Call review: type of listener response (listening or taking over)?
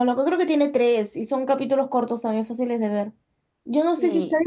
listening